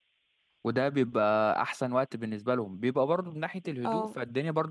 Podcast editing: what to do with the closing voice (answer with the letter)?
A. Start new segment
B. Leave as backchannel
B